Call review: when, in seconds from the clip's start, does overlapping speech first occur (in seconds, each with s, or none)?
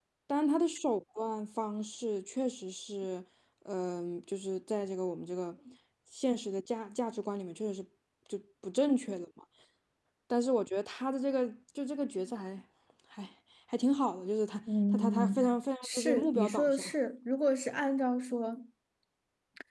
14.7 s